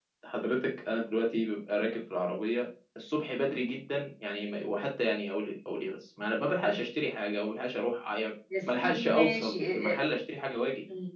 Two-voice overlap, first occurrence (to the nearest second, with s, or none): 9 s